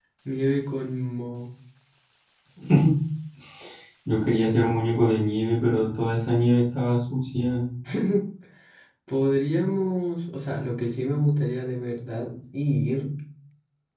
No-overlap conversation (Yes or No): Yes